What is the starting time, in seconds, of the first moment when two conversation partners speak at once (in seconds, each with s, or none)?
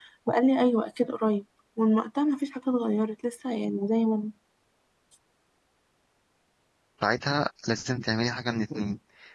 none